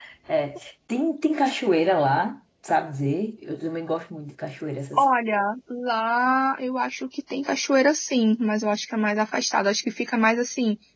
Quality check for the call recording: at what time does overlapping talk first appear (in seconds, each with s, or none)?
none